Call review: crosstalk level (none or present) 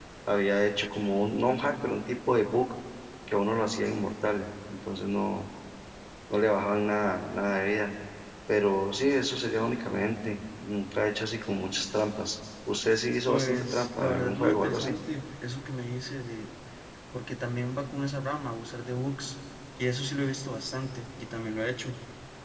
present